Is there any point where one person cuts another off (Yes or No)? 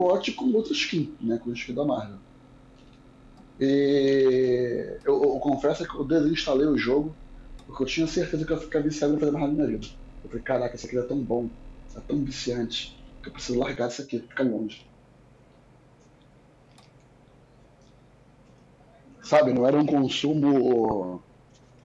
No